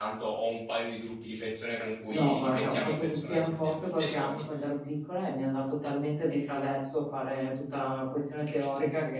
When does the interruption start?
2.1 s

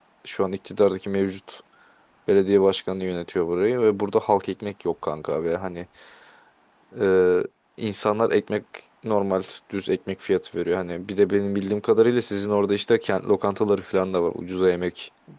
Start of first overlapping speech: none

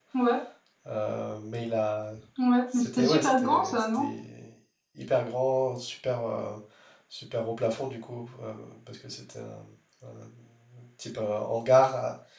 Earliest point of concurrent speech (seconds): 2.7 s

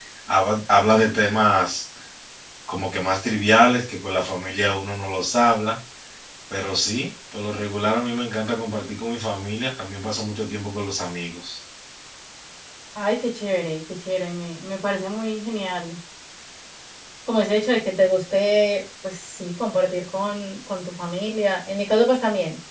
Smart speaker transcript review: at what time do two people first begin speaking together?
none

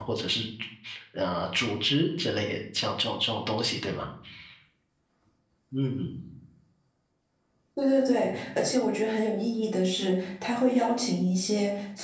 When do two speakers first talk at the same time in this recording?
none

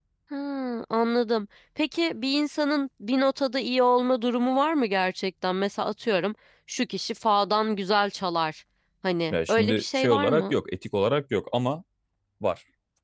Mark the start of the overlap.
9.3 s

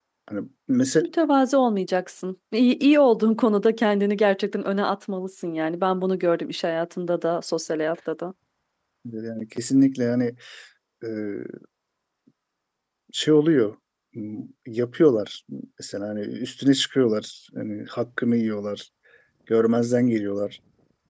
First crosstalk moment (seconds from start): none

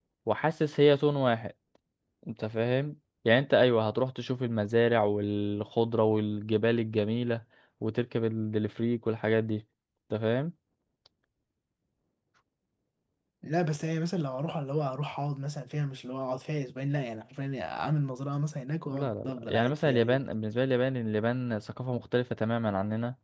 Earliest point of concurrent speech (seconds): 18.9 s

